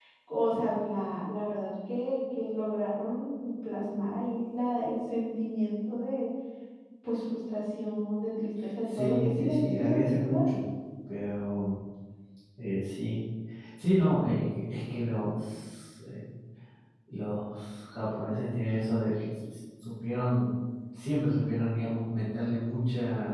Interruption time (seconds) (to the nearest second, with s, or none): 9 s